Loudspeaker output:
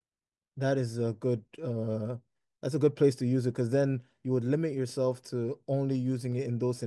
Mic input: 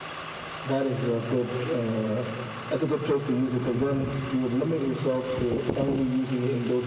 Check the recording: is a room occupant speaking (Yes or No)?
No